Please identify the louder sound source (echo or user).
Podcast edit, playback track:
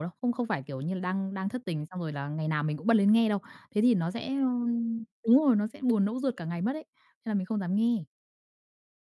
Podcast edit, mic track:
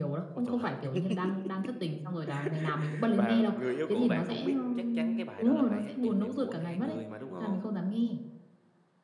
echo